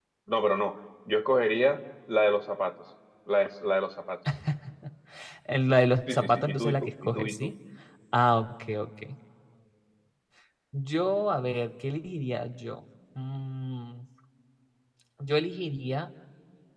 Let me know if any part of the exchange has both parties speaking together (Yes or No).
Yes